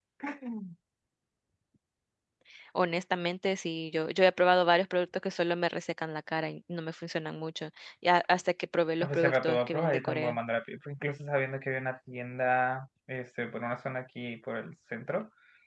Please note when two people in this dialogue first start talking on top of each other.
9.0 s

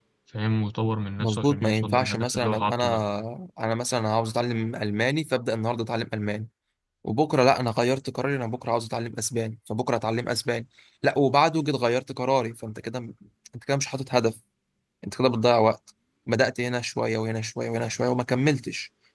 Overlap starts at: 1.2 s

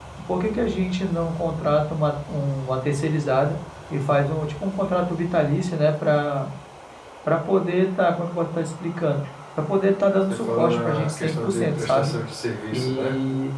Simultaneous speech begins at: 10.3 s

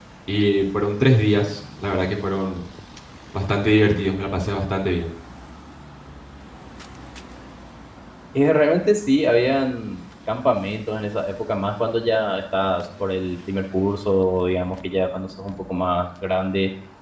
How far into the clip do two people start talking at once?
none

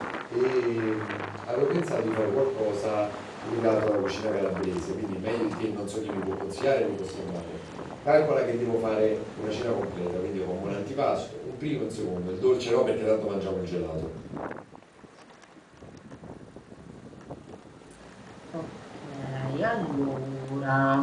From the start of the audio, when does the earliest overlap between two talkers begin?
none

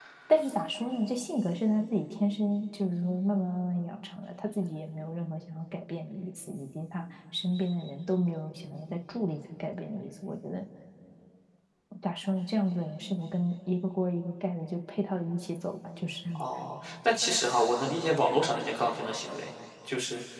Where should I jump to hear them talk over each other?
none

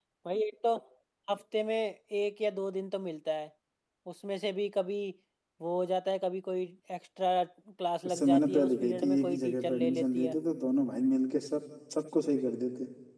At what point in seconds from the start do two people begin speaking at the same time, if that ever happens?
8.1 s

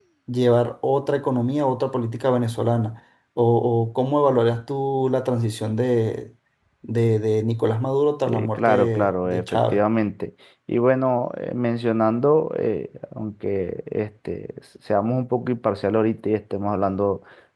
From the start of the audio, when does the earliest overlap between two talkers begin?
8.3 s

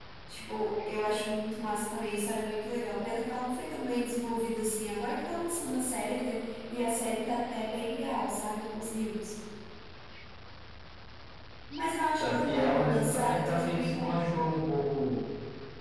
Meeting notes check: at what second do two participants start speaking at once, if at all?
12.2 s

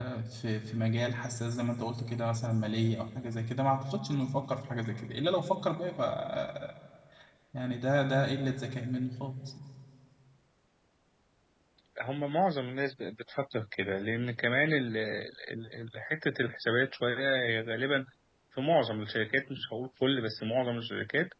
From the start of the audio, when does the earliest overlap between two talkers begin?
none

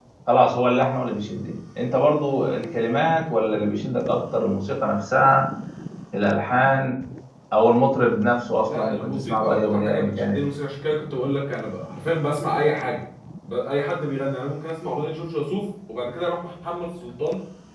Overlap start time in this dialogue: 8.6 s

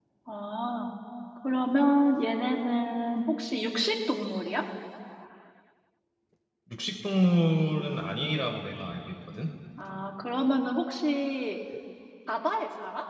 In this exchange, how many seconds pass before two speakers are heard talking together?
none

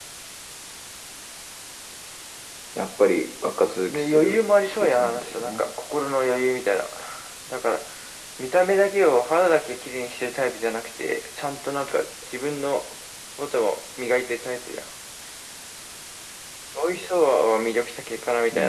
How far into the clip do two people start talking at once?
3.9 s

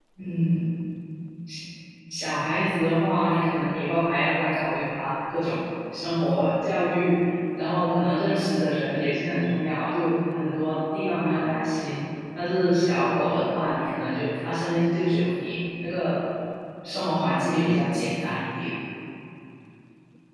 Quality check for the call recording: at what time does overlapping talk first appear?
none

